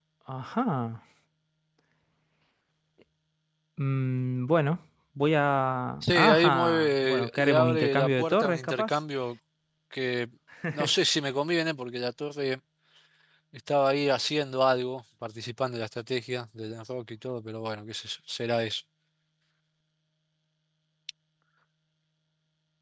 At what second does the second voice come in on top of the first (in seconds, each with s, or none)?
6.0 s